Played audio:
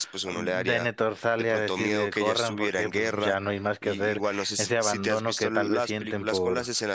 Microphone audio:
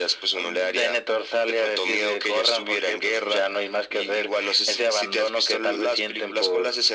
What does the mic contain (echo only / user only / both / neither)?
echo only